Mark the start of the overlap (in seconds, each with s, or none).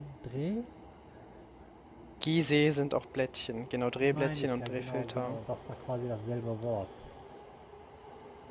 4.0 s